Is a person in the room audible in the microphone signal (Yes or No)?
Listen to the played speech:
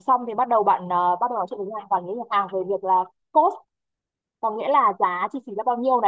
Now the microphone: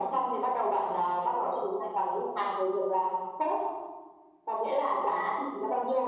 No